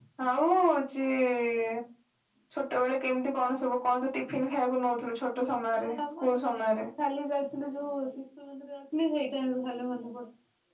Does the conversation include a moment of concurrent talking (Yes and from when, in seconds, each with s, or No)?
Yes, from 5.5 s